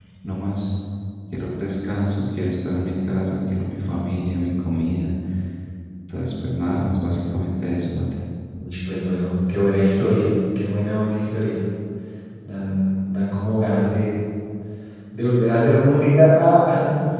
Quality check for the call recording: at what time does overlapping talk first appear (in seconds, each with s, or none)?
none